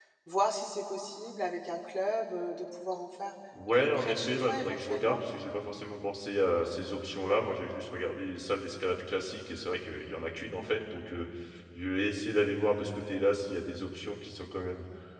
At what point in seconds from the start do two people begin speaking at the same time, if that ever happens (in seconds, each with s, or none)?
3.5 s